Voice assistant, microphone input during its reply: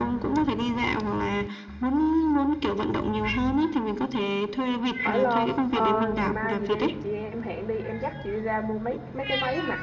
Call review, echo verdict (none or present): present